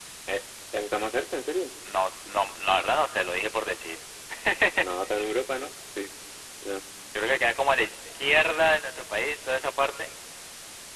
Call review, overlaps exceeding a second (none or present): none